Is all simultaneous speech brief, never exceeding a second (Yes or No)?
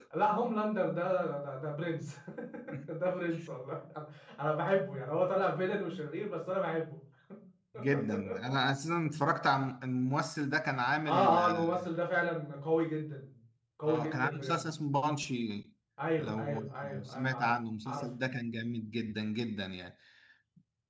No